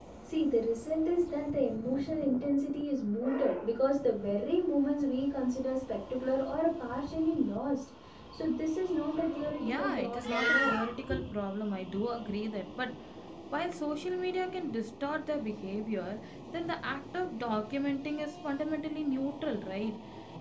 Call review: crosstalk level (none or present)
present